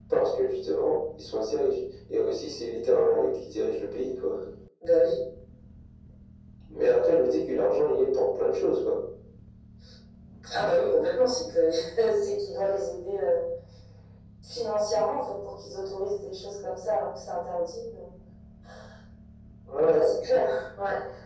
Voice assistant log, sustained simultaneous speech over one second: none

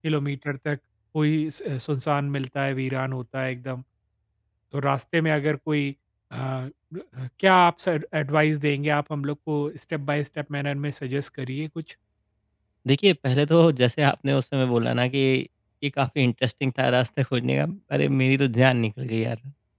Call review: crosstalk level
none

